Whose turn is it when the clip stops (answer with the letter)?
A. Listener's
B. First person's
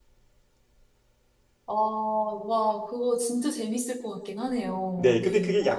A